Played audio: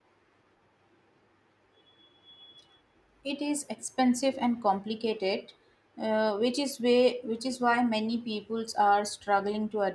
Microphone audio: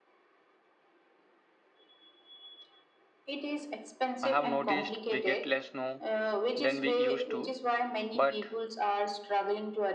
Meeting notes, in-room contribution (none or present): present